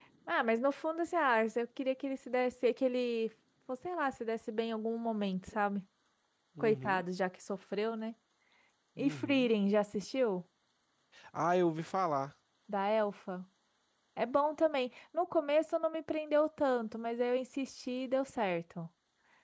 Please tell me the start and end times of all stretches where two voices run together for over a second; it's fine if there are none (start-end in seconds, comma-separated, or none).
none